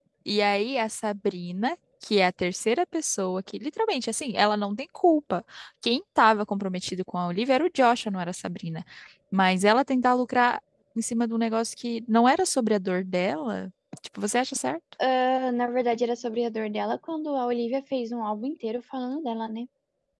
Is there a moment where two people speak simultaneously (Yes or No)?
No